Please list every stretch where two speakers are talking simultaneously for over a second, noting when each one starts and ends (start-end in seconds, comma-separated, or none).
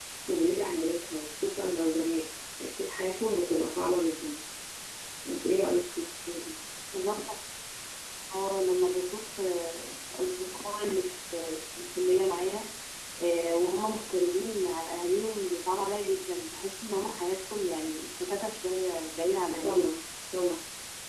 none